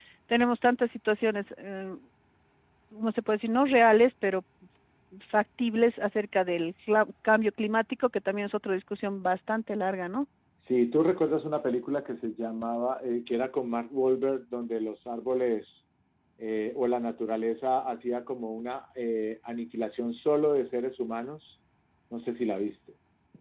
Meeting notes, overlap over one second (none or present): none